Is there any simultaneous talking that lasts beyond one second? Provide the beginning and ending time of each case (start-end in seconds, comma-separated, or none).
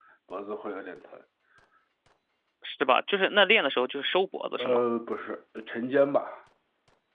none